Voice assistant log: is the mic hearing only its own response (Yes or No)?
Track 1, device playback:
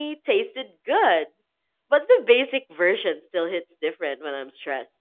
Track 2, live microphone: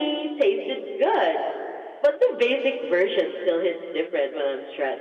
Yes